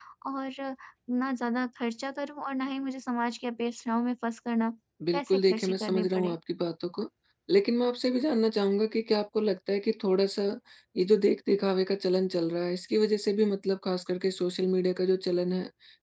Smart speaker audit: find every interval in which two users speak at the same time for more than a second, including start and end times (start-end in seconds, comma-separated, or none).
5.1-6.3